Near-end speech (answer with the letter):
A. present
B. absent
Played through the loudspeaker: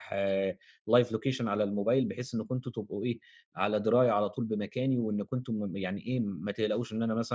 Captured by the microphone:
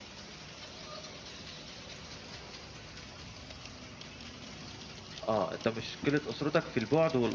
A